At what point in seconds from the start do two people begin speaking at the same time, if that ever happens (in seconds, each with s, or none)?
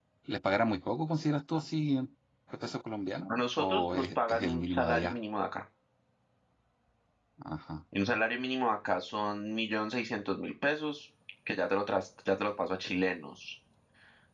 3.3 s